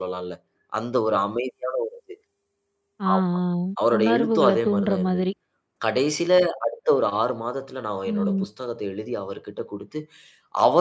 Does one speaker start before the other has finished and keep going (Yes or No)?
Yes